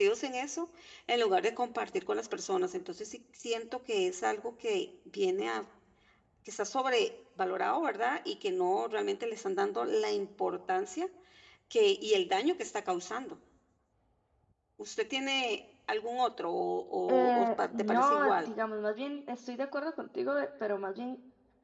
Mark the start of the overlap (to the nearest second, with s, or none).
17 s